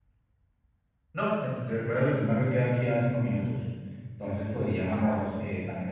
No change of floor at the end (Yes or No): Yes